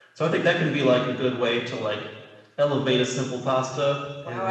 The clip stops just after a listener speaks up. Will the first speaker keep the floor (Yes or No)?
No